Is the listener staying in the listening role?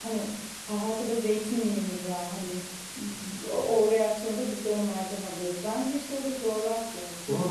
No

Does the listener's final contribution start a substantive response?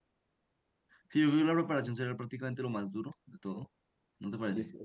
Yes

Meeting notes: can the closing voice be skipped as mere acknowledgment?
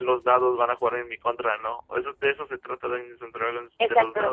No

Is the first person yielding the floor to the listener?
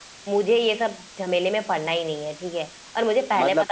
No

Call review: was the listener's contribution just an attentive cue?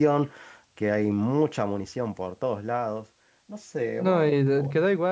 No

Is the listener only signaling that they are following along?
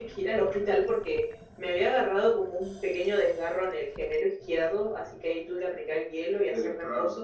Yes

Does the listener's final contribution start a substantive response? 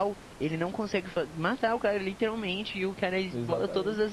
No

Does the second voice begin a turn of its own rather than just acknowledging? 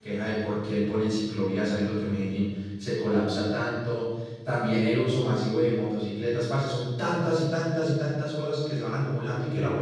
No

